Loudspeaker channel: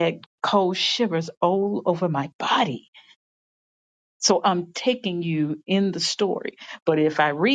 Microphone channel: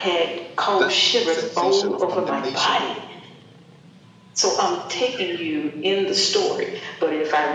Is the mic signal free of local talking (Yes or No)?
No